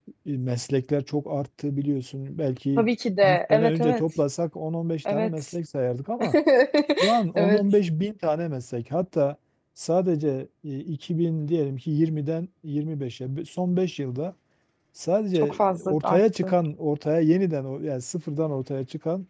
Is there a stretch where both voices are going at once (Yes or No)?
Yes